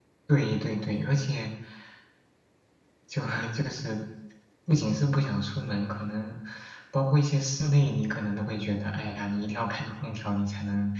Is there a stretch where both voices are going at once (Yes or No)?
No